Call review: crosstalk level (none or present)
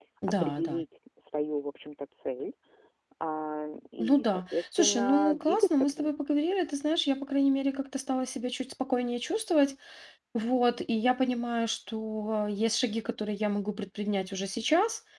present